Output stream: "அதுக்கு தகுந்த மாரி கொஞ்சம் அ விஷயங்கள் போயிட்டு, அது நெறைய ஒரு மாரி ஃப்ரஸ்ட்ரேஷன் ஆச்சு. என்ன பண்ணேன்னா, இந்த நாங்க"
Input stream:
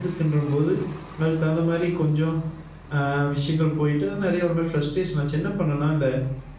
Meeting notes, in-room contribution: none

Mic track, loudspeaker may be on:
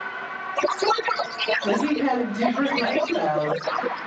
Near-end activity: present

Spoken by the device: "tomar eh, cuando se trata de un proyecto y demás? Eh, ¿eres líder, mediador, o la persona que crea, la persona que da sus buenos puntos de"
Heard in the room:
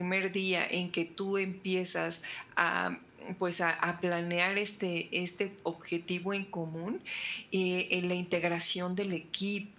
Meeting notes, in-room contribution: present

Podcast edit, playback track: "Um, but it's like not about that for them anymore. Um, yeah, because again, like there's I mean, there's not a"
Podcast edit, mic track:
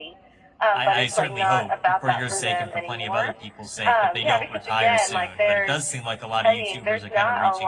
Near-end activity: present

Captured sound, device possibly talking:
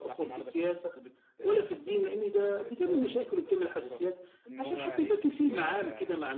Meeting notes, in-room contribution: present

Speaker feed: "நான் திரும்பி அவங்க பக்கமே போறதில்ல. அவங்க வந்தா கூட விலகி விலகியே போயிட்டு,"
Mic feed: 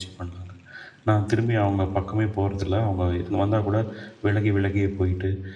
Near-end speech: none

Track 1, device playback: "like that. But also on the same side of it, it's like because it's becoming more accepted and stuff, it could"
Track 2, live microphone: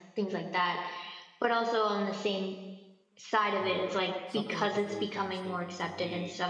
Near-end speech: present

